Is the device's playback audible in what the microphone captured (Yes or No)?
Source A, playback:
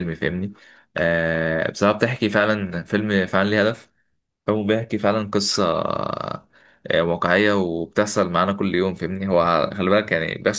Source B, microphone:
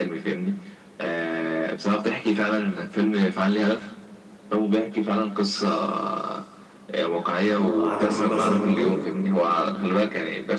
Yes